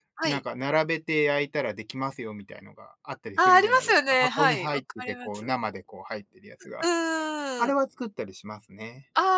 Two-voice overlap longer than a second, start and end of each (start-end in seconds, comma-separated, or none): 3.4-5.5